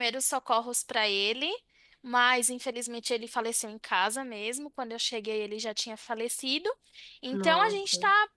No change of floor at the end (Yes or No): Yes